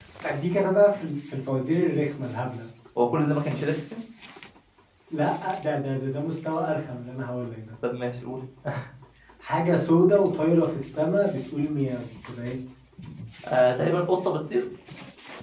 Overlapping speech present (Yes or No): No